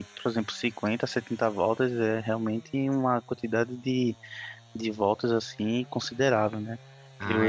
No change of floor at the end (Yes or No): No